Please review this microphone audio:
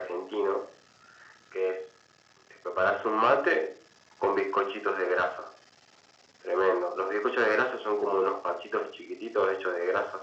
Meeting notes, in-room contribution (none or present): none